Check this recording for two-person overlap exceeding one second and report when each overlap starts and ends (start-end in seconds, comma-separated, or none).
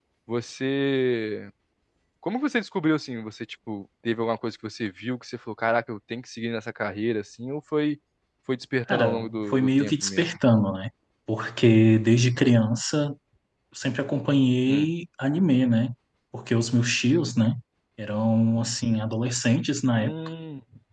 8.9-10.3